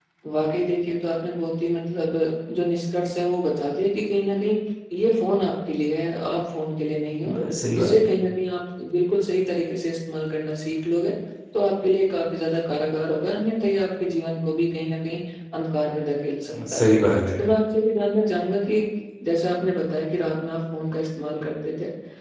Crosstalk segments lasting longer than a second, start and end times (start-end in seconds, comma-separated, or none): none